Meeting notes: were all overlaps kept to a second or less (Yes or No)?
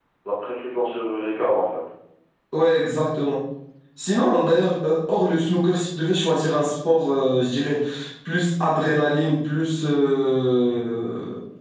Yes